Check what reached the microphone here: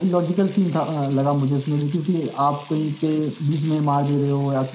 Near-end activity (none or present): none